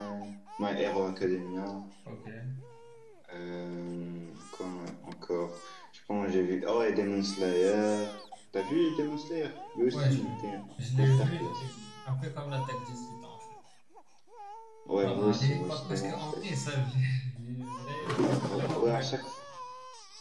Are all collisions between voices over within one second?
No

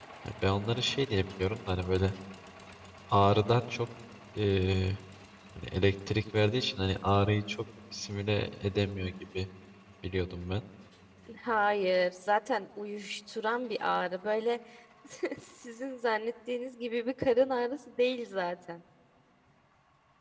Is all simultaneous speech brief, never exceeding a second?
Yes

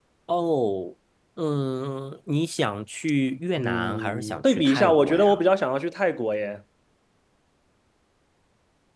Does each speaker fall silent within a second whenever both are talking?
No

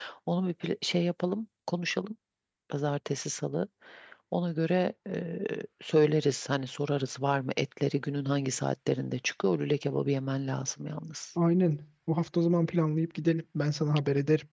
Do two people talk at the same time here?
No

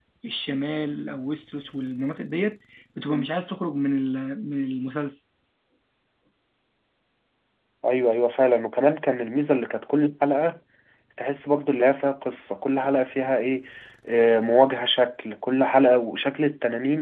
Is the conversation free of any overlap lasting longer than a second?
Yes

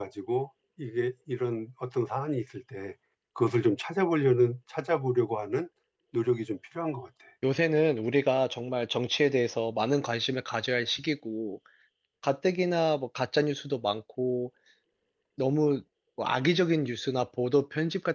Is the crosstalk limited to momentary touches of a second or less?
Yes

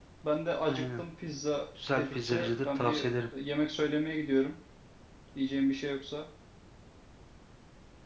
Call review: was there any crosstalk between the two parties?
Yes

